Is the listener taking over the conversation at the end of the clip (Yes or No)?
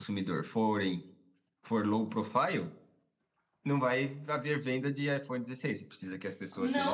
Yes